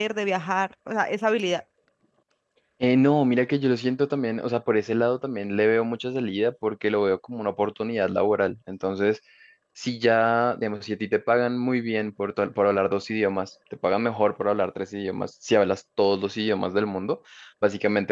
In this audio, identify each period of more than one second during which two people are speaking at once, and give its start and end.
none

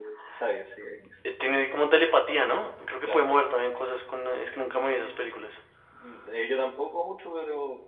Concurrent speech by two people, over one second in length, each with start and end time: none

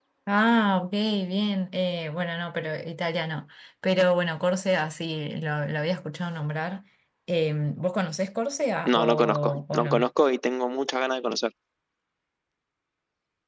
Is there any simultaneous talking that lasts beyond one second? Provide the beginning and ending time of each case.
8.8-10.1

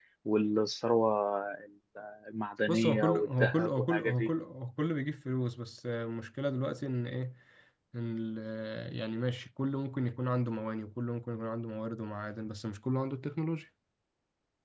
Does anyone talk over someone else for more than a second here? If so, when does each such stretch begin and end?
2.7-4.3

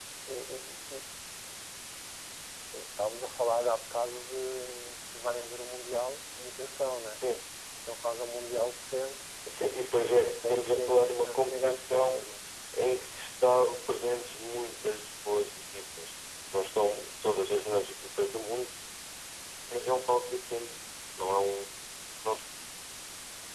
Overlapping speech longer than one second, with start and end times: 10.2-12.2

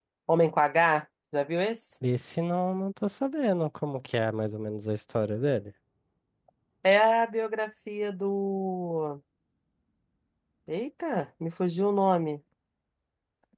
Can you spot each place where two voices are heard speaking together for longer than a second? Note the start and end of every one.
none

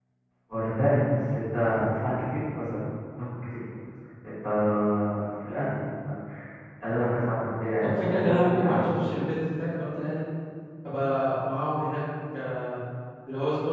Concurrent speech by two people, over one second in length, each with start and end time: 7.8-9.2

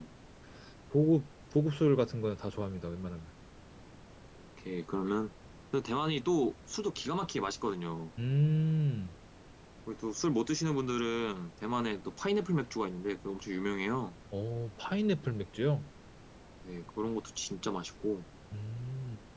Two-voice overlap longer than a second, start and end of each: none

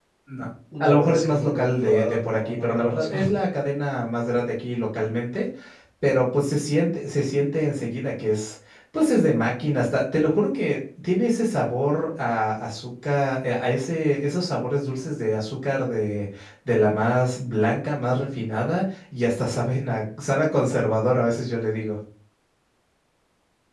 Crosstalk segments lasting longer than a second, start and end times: 0.8-3.2

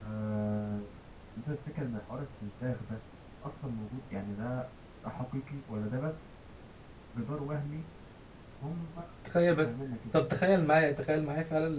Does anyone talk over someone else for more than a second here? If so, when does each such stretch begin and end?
none

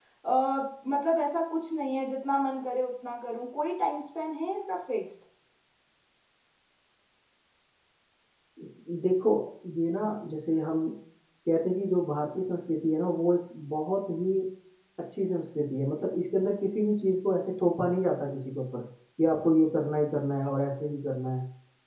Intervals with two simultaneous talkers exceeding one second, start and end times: none

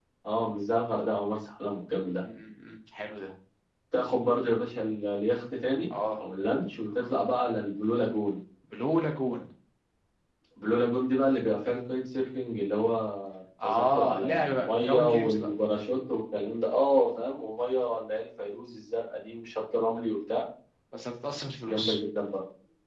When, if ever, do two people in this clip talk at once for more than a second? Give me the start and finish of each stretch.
13.6-15.5

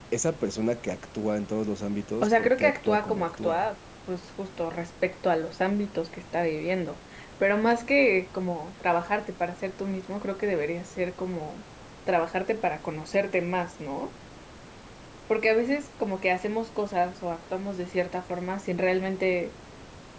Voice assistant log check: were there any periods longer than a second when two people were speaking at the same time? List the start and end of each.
2.2-3.7

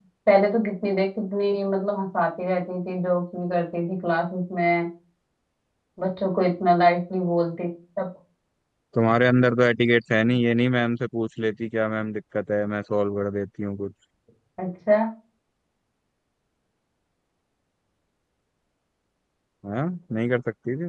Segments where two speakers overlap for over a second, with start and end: none

